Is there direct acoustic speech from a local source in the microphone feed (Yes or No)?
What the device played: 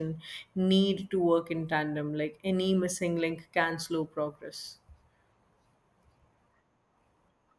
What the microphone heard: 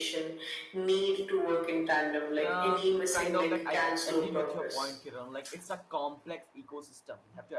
Yes